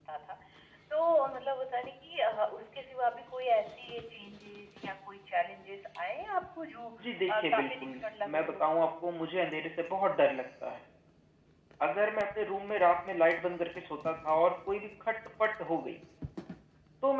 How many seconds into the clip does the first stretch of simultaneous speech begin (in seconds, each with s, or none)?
7.3 s